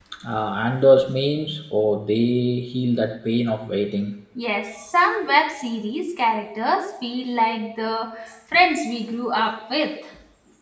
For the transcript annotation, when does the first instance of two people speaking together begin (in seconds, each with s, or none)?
none